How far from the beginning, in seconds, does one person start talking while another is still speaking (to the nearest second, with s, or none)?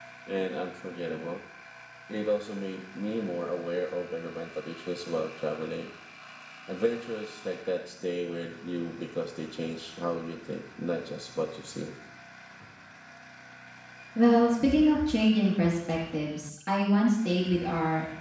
none